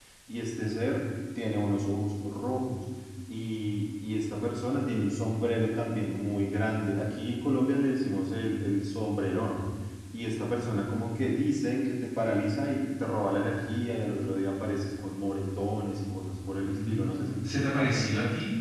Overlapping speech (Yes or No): Yes